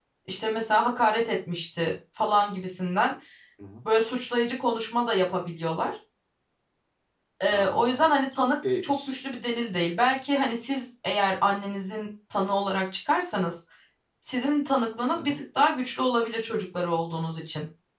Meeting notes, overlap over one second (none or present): none